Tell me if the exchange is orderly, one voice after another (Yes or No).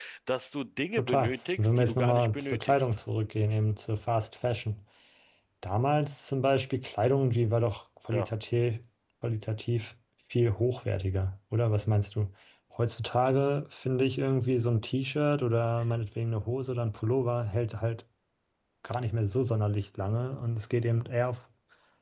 No